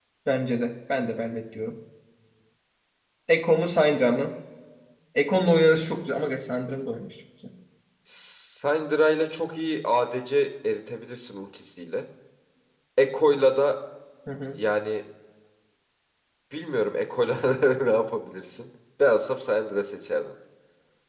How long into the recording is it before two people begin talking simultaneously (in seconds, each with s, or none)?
none